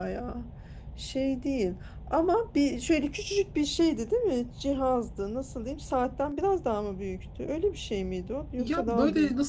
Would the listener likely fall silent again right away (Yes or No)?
No